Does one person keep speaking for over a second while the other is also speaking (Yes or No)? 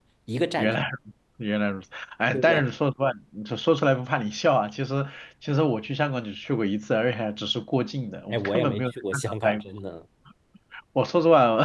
Yes